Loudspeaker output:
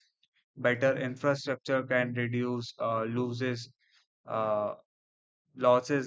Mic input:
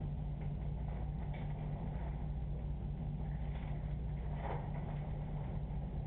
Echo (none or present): none